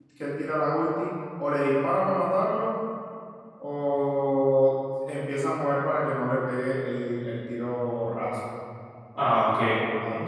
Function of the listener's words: taking over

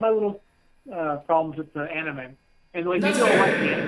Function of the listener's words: listening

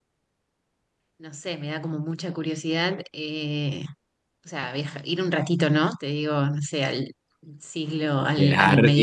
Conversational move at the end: taking over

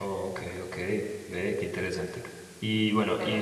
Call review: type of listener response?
listening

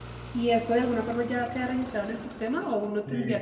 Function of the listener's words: taking over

